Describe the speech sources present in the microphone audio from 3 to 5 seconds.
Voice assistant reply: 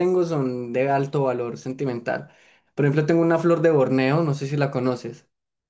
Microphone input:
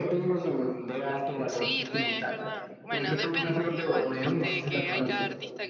both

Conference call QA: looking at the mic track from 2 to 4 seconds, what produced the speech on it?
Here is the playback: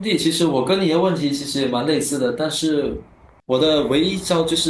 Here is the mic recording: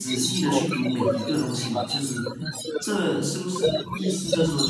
both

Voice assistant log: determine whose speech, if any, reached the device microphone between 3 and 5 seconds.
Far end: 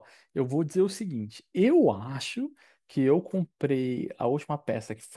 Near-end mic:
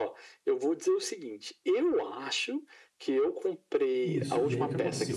both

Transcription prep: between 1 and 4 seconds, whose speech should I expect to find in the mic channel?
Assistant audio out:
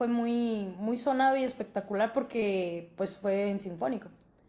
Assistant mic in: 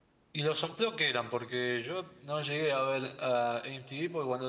user only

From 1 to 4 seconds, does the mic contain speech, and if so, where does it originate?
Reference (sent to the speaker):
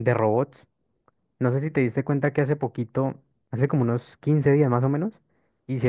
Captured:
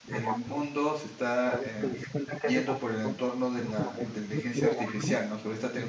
both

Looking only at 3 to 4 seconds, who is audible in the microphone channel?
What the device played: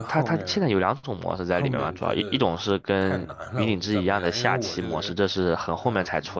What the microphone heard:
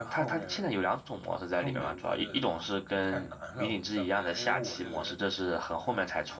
echo only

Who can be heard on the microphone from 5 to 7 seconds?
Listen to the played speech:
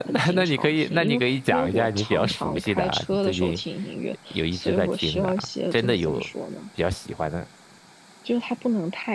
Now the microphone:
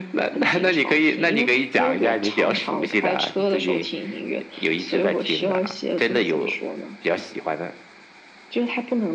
echo only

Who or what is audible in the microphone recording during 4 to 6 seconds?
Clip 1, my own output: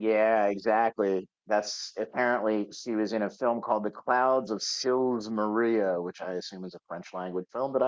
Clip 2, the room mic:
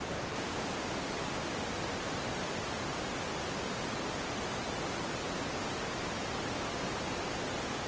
neither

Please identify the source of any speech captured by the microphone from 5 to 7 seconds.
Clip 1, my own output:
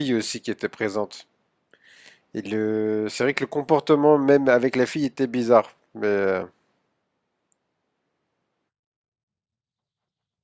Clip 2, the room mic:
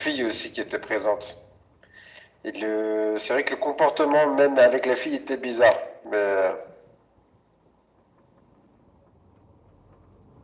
echo only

